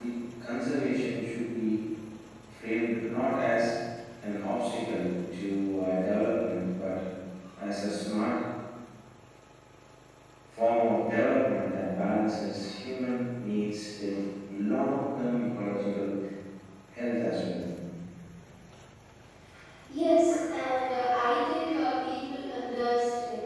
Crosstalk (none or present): none